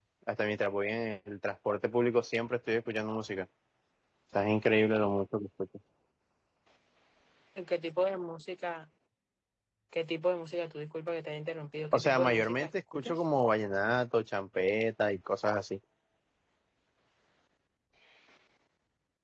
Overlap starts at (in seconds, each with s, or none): 11.9 s